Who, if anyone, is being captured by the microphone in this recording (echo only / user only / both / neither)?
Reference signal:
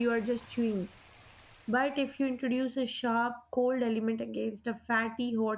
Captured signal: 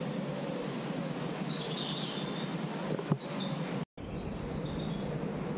neither